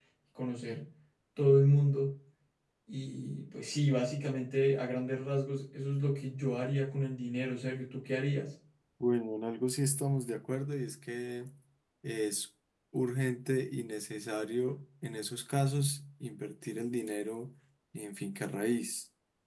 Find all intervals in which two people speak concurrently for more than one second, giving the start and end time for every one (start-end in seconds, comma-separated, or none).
none